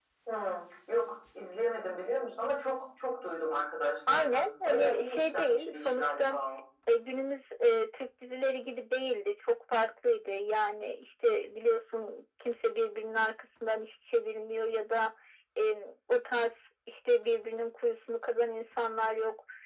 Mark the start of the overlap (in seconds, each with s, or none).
4.1 s